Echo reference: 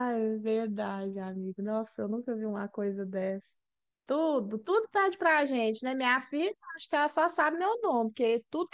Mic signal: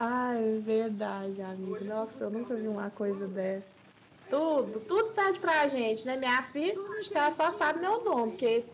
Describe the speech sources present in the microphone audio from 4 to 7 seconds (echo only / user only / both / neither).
both